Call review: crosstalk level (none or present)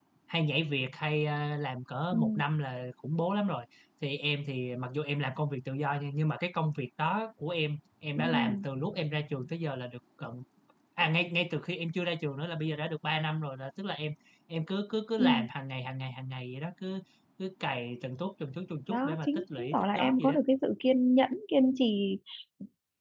present